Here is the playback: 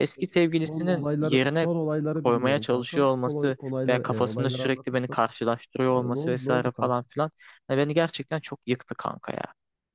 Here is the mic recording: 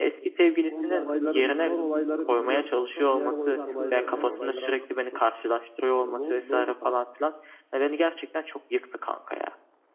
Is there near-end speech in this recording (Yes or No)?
Yes